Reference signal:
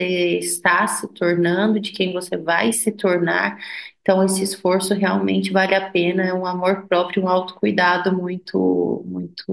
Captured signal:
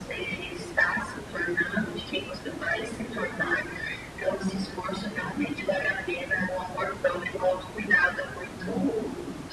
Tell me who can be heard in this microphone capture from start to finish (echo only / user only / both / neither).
echo only